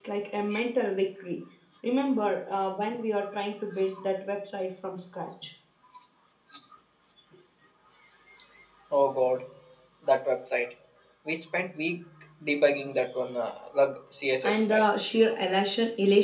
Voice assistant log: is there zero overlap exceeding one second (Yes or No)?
Yes